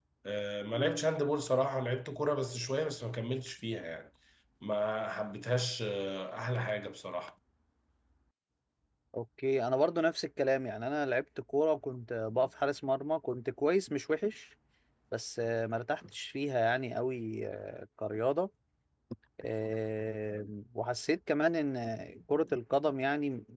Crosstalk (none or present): none